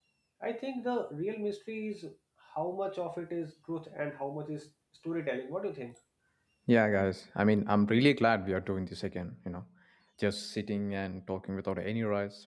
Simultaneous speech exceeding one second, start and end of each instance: none

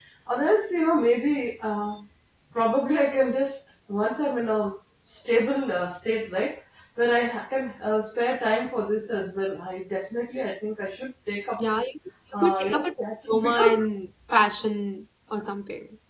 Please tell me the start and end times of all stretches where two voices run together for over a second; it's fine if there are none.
12.3-13.9

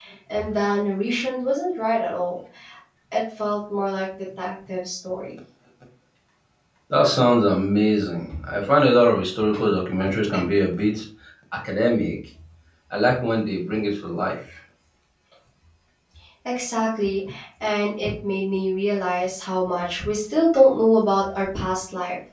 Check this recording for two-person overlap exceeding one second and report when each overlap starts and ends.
none

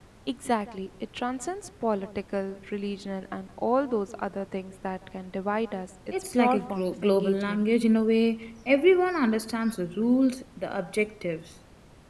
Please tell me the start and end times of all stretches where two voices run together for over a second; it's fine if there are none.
6.3-7.7

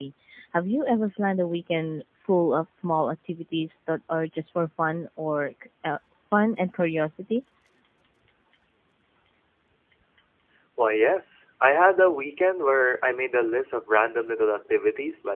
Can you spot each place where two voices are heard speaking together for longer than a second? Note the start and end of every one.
none

